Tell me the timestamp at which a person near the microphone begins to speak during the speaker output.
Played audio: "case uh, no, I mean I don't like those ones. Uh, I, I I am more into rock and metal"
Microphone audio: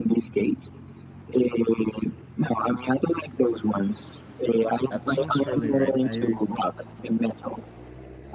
4.9 s

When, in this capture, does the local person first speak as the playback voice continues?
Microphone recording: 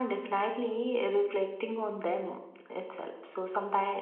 none

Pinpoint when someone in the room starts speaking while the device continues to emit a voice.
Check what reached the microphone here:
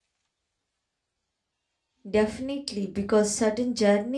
2.1 s

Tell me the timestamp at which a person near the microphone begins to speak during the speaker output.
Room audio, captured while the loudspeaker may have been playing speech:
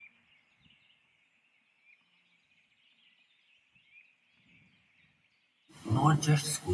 5.8 s

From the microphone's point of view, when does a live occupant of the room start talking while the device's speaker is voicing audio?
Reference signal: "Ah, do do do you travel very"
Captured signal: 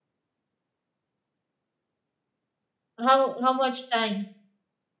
3.0 s

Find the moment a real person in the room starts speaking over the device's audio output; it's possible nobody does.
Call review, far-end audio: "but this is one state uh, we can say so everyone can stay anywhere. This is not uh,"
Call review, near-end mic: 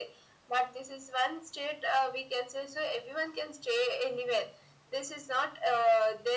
none

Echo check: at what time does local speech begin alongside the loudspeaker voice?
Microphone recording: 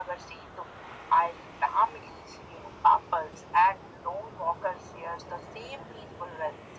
none

